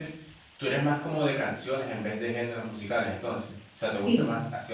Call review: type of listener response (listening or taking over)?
taking over